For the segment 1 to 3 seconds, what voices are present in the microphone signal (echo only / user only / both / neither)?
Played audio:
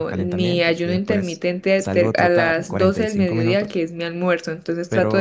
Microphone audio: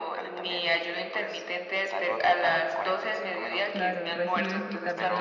echo only